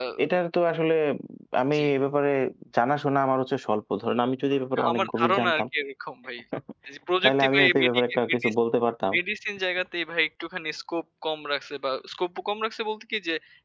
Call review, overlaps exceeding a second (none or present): present